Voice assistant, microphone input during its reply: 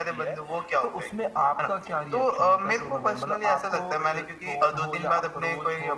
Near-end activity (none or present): none